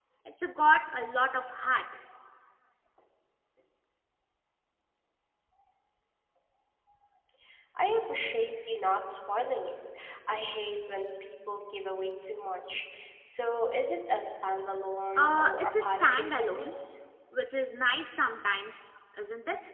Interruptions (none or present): present